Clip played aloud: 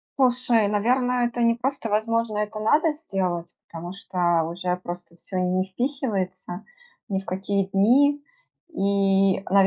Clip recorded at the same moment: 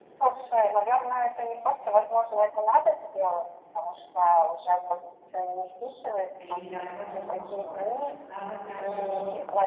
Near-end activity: present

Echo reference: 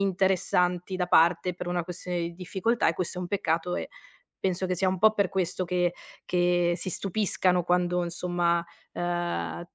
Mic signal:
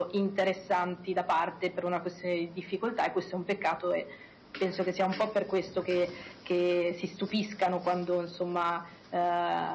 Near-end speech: none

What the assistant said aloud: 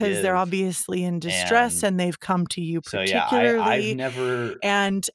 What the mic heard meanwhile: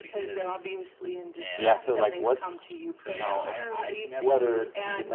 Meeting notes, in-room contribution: present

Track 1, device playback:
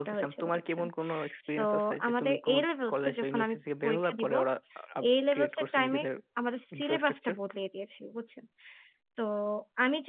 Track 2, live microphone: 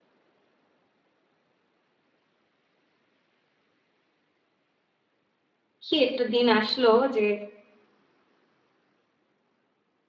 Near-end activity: present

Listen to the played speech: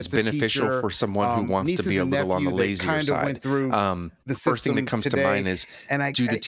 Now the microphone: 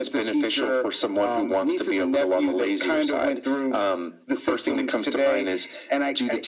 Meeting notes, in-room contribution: none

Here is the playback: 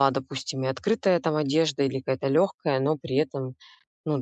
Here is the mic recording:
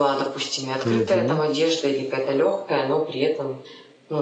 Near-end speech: present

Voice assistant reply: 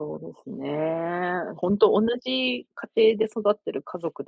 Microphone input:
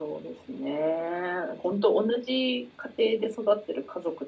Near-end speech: none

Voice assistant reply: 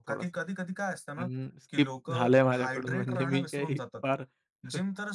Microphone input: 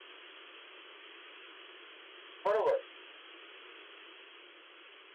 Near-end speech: present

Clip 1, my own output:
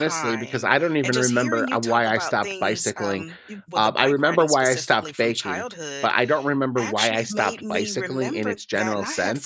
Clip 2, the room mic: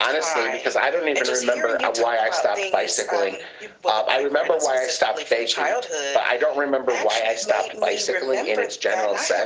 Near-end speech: none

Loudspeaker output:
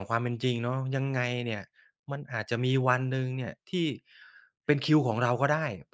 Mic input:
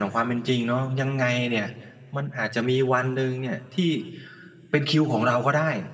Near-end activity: none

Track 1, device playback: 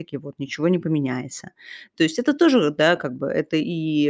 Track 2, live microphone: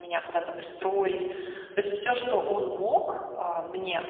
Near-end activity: present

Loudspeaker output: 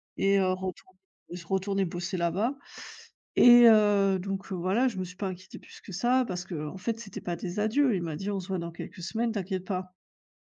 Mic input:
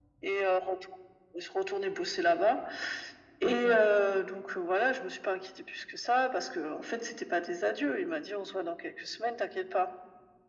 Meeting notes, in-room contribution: present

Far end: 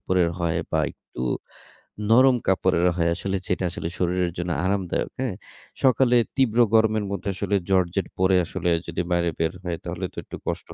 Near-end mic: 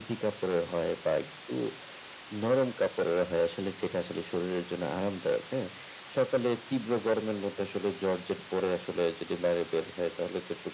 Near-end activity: none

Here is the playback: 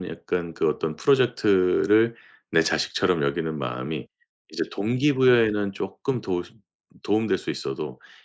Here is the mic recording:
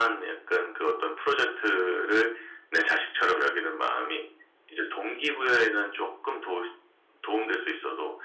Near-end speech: none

